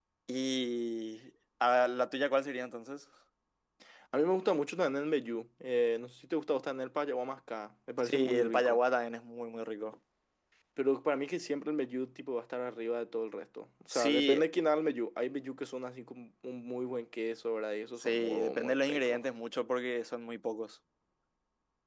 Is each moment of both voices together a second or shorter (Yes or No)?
No